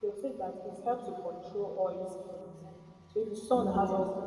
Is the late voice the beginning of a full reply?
No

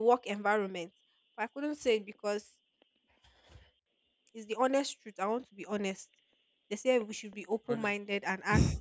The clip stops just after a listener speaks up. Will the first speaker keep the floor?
Yes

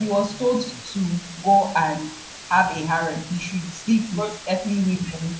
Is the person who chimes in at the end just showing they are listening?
Yes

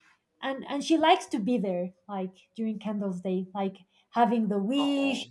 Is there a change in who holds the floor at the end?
No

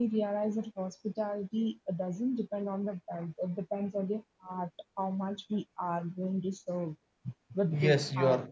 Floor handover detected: Yes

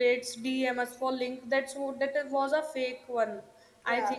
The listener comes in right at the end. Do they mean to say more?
No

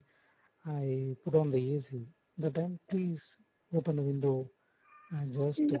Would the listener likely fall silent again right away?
No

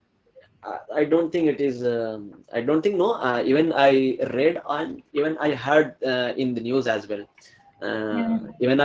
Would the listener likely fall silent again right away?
Yes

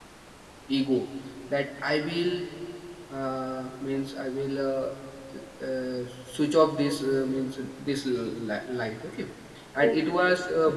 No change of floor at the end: Yes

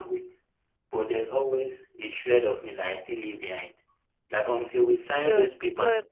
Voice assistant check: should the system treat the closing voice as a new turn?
Yes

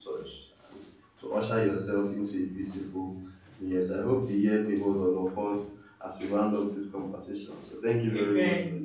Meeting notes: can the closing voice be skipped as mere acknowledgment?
No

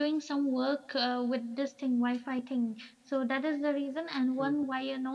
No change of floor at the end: Yes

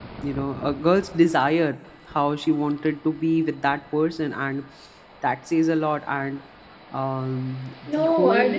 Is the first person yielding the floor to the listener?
Yes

